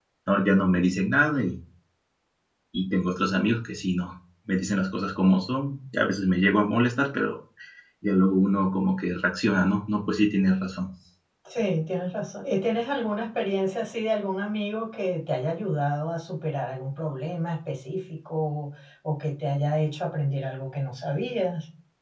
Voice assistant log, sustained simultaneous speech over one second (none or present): none